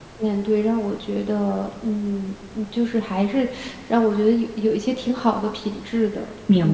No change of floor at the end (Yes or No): No